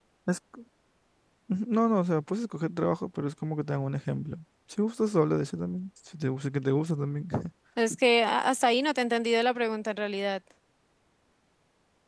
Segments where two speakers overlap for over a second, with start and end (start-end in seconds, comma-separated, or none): none